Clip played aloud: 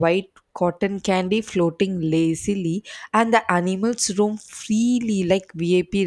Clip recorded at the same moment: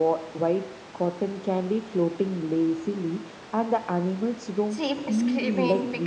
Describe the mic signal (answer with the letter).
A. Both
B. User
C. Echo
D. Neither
A